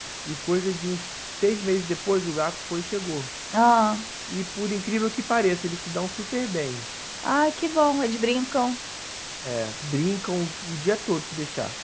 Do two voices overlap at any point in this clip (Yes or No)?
No